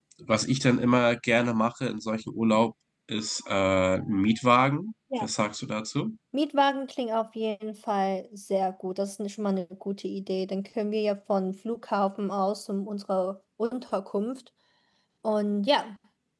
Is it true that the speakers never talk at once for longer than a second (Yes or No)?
Yes